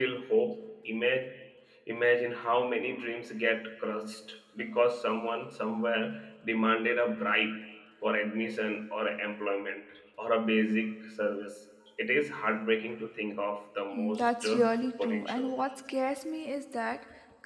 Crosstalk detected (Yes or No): Yes